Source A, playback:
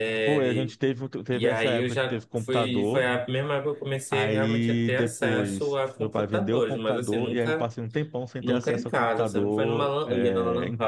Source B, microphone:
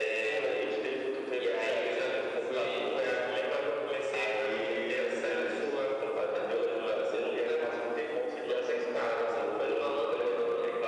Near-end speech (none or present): none